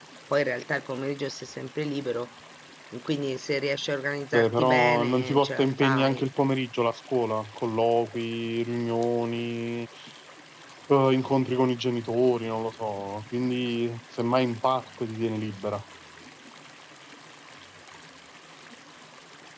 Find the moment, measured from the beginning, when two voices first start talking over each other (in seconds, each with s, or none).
4.3 s